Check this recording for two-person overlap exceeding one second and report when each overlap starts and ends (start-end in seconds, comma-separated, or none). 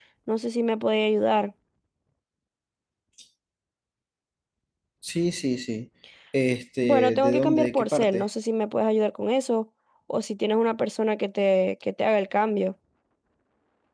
6.8-8.2